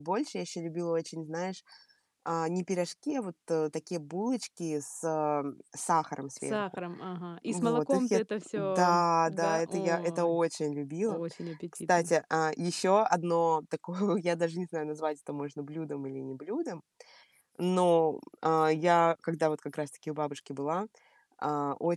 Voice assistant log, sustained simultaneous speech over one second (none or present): present